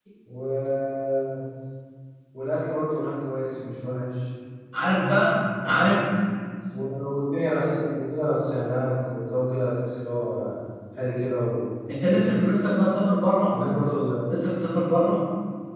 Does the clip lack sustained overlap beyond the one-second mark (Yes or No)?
Yes